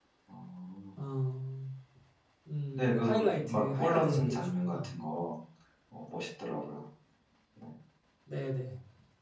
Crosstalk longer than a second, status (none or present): present